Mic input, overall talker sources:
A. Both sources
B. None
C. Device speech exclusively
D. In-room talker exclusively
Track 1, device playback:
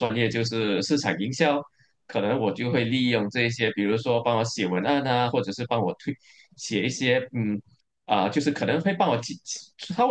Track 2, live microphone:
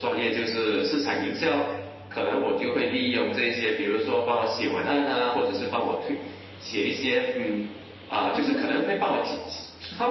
A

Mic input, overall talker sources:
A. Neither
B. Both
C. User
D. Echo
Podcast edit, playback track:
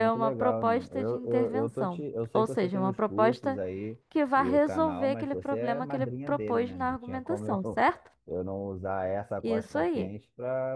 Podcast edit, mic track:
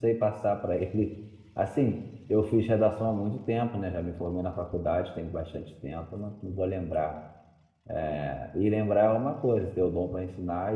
C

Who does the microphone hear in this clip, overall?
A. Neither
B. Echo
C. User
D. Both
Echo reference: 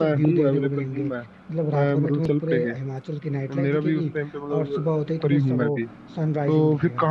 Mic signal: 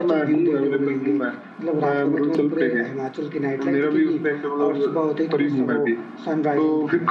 B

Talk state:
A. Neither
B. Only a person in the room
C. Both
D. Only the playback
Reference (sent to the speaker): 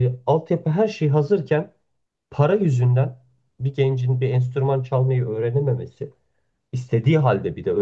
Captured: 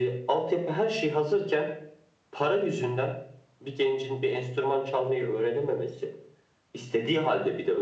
D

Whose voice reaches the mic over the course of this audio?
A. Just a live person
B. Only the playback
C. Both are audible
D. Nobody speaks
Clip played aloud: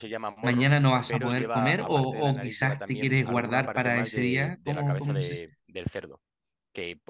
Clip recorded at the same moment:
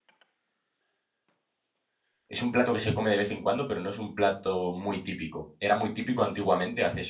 A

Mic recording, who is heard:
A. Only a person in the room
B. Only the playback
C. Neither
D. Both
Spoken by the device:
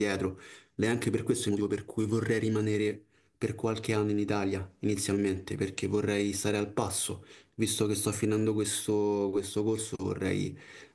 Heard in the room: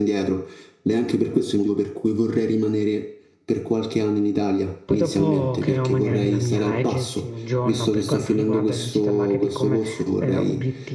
D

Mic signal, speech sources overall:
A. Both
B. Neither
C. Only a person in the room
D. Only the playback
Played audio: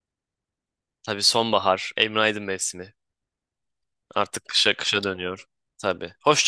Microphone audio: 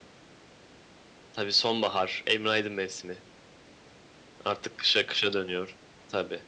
D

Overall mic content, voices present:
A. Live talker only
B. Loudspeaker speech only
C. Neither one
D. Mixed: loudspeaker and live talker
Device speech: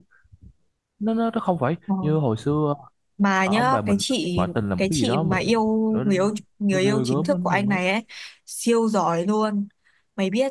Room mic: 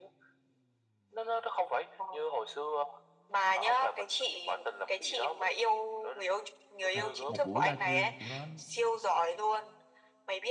D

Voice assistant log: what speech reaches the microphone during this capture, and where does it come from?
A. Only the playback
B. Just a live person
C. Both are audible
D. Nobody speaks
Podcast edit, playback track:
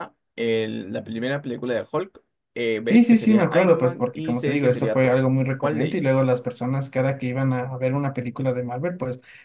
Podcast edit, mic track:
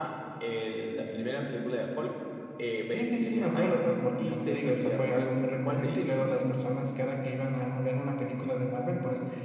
A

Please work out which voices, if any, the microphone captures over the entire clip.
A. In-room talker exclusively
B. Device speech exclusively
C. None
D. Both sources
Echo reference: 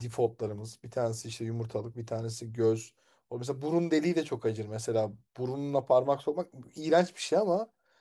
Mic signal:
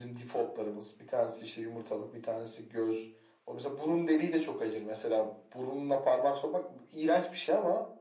B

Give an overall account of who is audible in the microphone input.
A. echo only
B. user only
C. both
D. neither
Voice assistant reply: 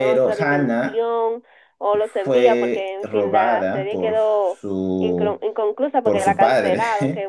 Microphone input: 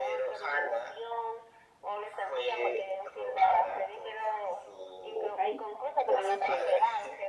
C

